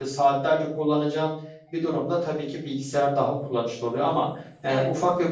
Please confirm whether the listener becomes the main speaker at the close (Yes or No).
No